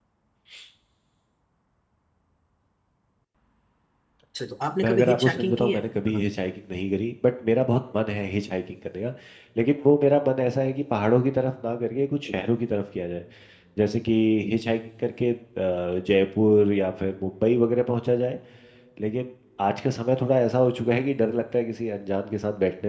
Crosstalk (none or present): present